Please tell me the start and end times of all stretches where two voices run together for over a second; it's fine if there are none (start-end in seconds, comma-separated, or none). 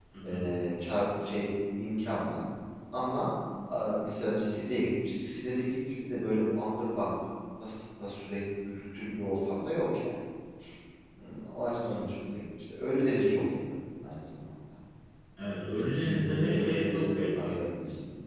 15.7-17.5